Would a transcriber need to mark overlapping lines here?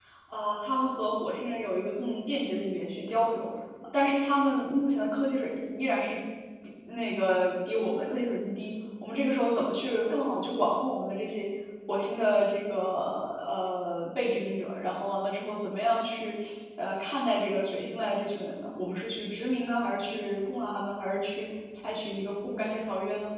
No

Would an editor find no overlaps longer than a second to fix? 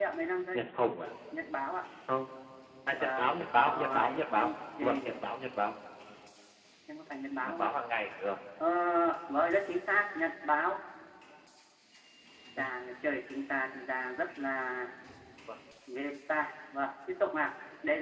No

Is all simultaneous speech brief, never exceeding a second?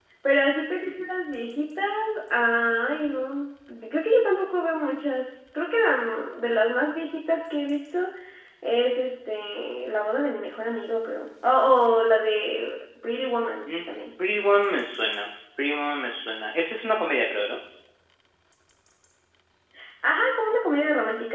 Yes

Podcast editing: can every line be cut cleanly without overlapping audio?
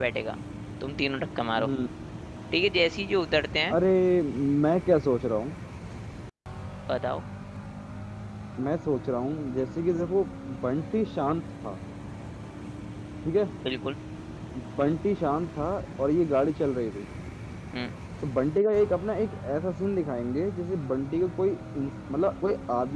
Yes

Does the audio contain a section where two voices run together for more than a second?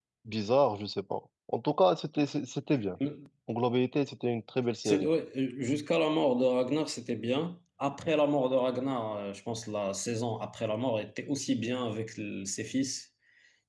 No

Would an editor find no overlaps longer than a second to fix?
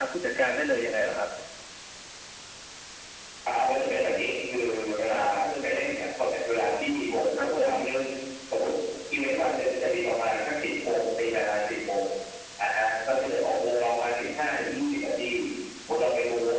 Yes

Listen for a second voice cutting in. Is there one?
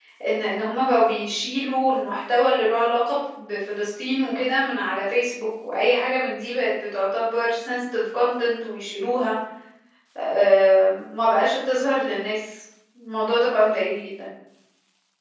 No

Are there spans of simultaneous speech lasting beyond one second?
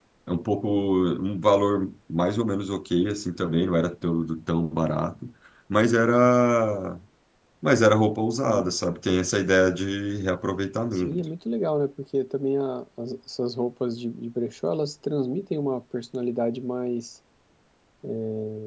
No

